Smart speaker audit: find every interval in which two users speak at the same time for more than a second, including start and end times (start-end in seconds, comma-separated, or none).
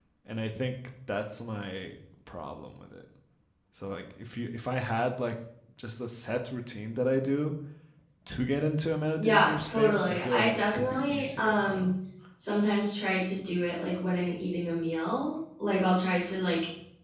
9.2-11.9